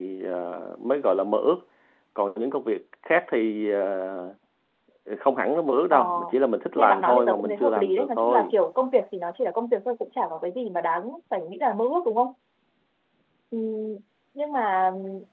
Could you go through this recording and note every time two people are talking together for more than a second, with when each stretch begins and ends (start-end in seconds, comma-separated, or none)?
6.8-8.5